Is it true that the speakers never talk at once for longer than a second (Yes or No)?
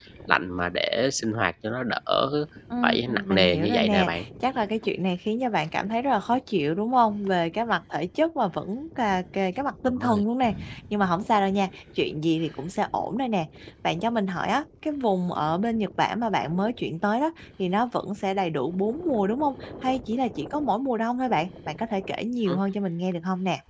No